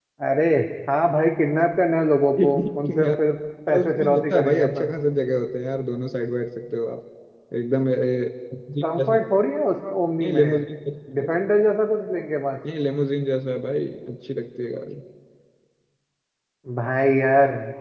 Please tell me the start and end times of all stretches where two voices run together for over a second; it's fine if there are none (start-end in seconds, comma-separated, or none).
3.7-4.9